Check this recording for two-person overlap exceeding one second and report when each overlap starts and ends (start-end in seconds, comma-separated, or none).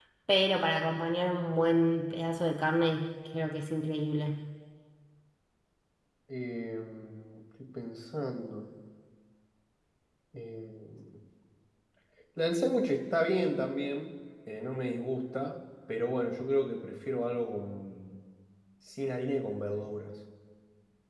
none